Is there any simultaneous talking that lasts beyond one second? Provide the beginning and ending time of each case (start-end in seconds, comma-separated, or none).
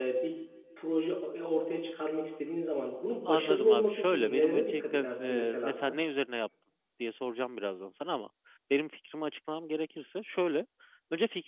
3.3-6.0